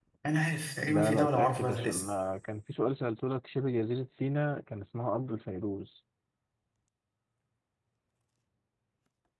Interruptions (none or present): present